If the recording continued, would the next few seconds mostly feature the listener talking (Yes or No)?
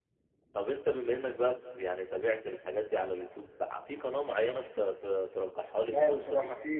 Yes